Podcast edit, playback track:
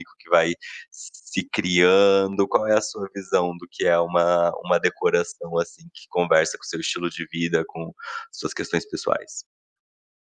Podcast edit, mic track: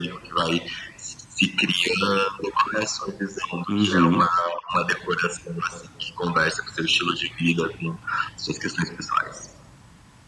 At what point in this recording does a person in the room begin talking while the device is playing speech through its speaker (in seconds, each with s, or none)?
3.7 s